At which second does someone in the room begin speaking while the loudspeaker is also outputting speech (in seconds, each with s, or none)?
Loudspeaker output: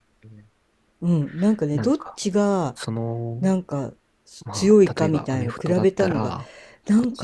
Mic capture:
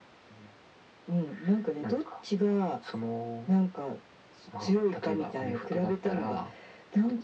none